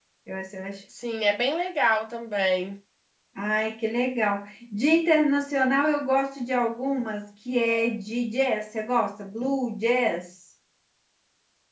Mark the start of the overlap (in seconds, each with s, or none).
none